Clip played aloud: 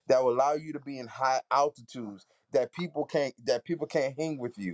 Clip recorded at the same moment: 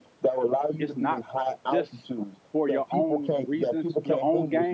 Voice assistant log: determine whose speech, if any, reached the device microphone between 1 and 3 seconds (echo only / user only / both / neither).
both